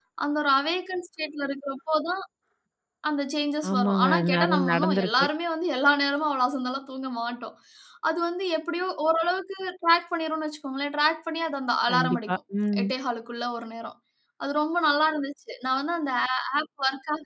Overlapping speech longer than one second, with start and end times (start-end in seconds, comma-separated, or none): 3.7-5.3